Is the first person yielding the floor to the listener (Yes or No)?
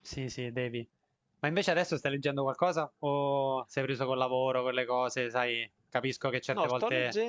Yes